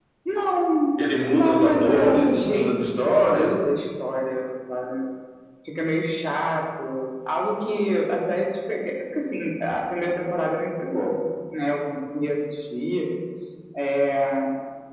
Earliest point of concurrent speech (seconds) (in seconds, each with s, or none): 1.3 s